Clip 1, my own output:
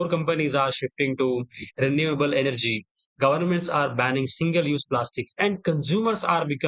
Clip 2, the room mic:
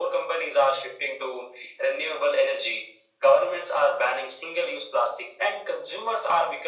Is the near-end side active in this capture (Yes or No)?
No